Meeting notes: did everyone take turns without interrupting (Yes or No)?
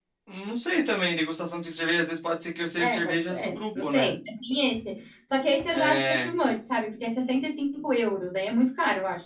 No